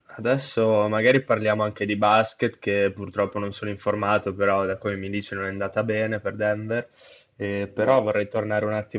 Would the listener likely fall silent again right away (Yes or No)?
Yes